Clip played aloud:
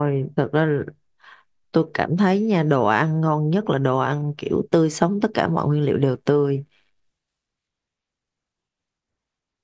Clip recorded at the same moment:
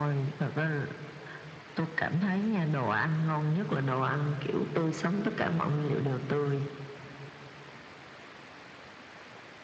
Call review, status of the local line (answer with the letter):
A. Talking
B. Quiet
B